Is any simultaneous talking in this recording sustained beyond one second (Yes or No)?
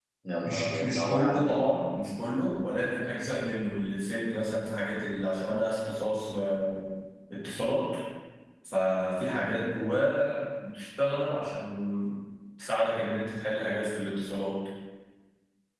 Yes